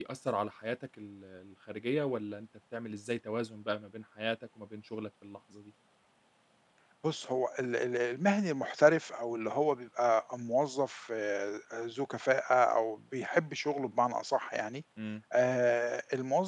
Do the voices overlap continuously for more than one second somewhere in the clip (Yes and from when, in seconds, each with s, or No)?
No